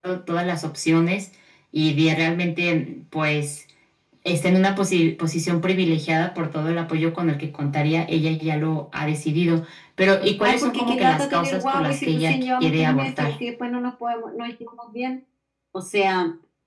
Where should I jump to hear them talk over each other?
10.4 s

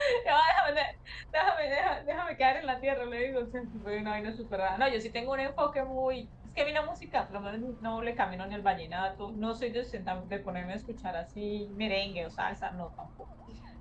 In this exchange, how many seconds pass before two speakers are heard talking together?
none

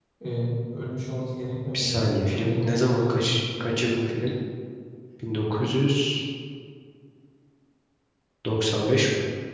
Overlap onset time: 1.7 s

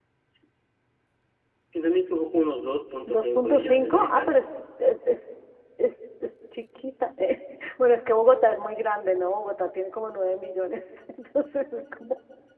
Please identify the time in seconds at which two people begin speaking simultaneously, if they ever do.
3.1 s

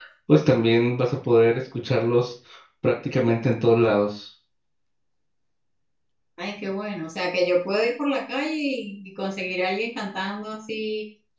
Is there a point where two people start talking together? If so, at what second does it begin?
none

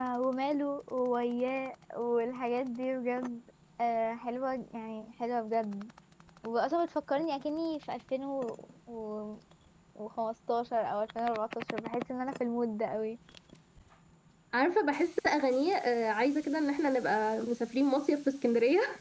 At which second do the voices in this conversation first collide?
none

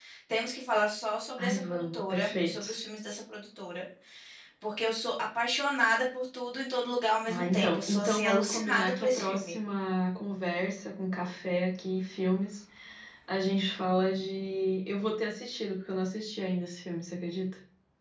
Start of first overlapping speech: 1.4 s

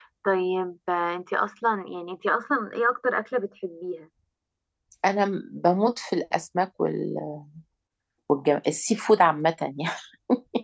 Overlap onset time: none

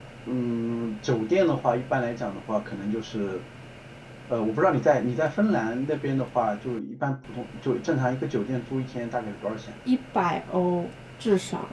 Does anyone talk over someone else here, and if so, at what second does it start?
none

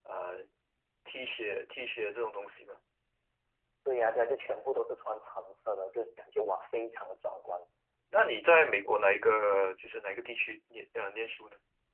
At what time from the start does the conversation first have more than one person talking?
none

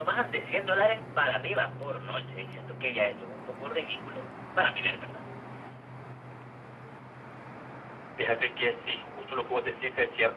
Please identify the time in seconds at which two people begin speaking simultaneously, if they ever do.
none

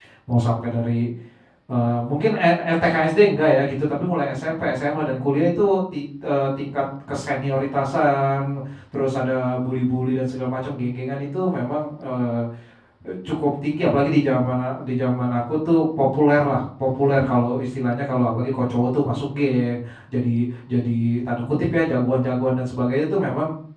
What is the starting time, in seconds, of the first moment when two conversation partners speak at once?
none

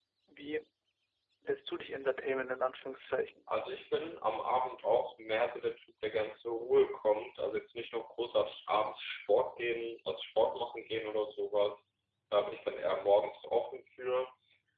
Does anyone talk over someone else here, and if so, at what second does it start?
none

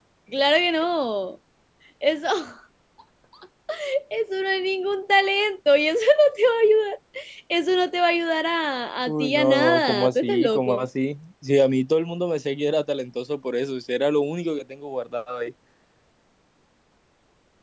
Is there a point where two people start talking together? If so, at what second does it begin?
9.1 s

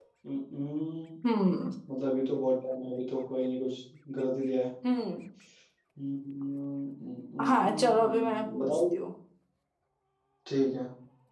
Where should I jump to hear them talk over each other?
7.5 s

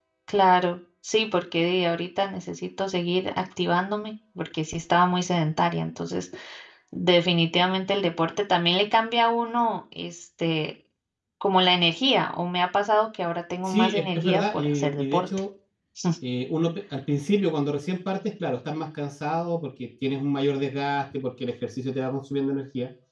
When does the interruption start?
13.6 s

